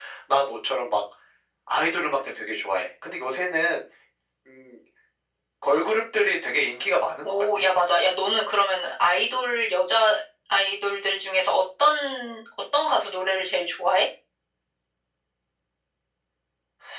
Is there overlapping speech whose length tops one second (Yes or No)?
No